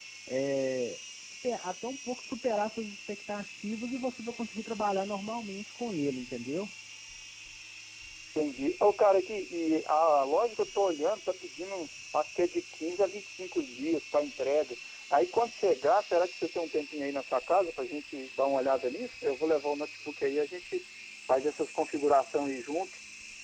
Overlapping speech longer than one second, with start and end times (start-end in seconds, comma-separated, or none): none